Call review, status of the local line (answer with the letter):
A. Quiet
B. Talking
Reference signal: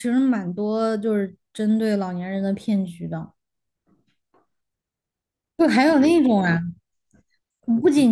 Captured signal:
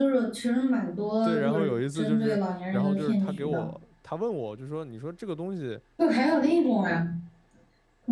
B